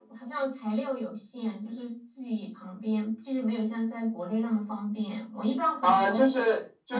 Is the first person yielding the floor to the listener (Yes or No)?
Yes